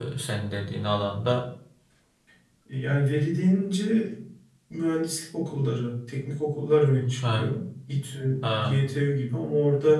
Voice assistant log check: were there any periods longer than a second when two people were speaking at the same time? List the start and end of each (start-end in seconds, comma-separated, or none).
none